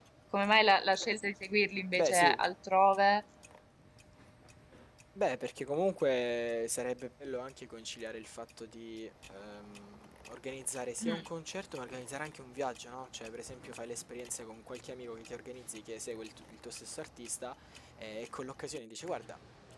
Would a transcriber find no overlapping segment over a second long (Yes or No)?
Yes